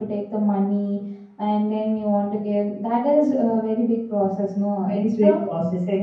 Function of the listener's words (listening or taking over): taking over